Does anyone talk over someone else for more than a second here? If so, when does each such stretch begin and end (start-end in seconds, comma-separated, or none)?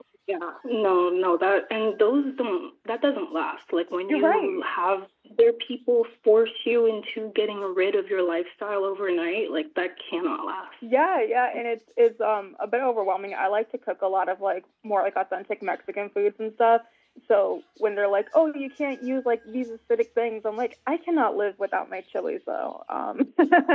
none